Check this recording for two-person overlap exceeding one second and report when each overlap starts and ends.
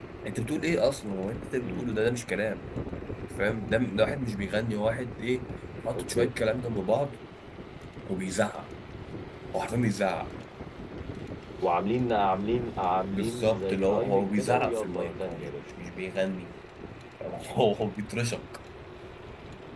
13.1-15.6

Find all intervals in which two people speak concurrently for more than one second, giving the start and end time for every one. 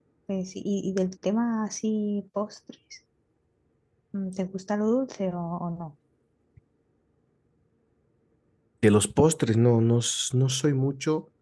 none

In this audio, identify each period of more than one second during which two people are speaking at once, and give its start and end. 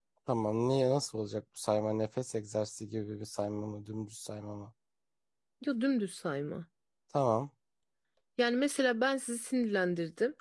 none

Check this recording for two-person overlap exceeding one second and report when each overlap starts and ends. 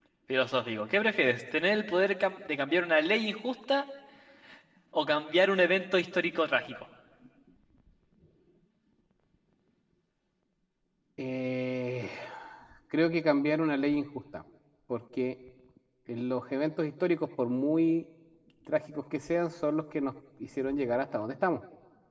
none

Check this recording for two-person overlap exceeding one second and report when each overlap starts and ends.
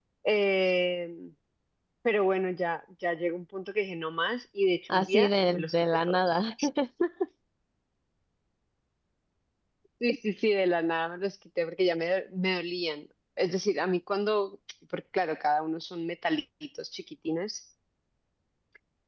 4.9-6.4

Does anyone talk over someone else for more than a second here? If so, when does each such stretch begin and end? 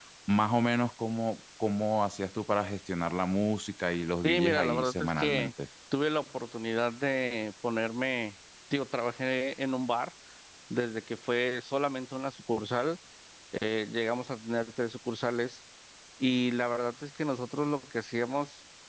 4.2-5.5

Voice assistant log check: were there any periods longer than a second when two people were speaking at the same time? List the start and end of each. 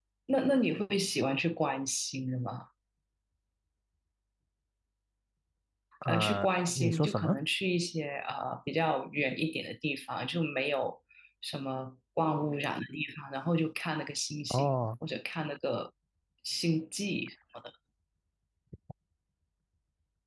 6.0-7.4

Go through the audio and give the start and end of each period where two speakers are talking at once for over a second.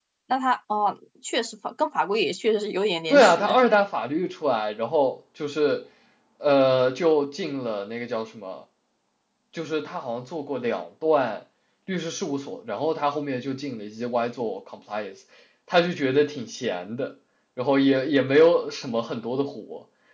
none

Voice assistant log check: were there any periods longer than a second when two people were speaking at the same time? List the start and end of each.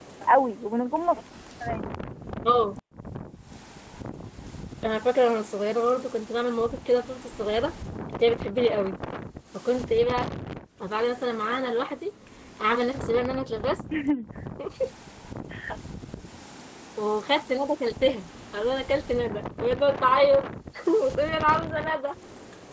none

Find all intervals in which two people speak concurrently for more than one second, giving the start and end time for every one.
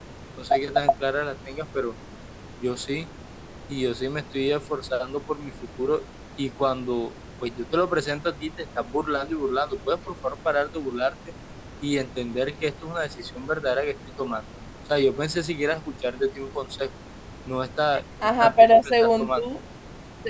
18.2-19.5

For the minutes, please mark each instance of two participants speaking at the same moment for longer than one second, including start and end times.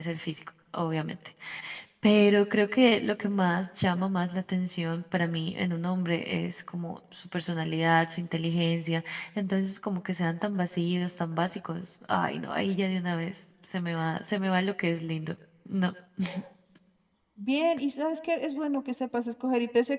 none

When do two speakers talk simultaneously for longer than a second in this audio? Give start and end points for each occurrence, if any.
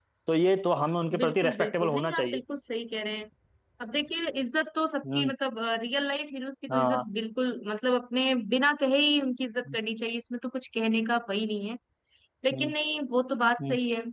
1.2-2.4

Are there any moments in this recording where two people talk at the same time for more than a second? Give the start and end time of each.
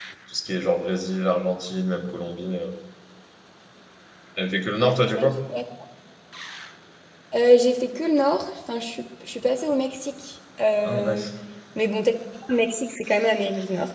none

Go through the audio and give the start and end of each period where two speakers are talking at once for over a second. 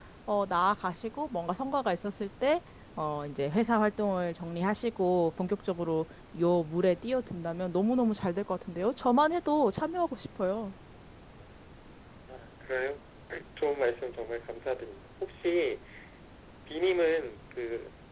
none

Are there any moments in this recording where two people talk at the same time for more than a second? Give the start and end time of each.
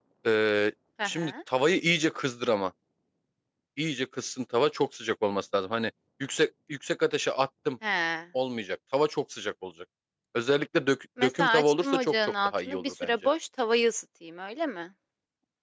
11.2-13.1

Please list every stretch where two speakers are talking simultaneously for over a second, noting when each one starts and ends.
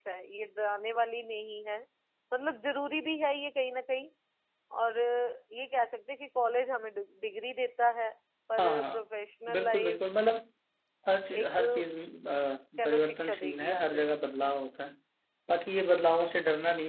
12.8-14.0

